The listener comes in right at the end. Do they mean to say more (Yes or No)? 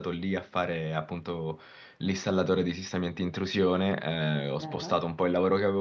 No